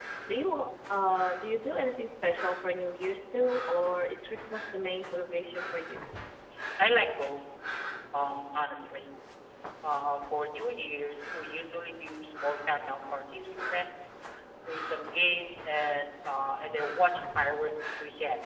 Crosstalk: none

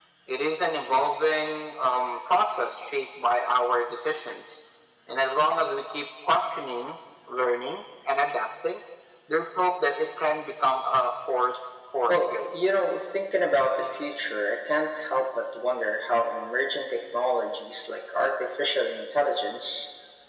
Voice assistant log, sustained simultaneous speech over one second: none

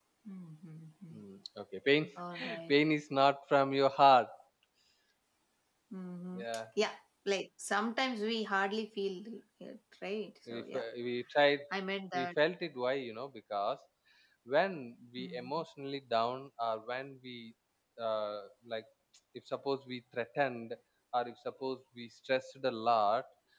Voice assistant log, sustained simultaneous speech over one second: none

